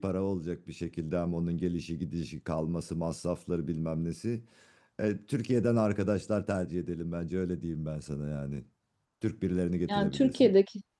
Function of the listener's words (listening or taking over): taking over